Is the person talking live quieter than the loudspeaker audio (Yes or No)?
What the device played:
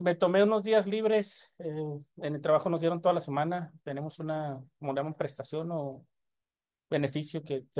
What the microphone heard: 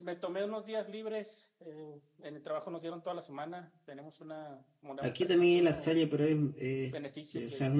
No